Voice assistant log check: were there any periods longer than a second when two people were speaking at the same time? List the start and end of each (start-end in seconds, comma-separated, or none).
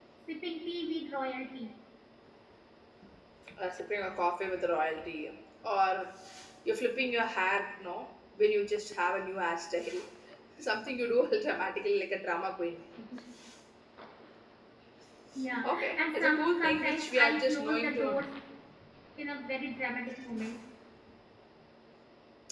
15.7-18.0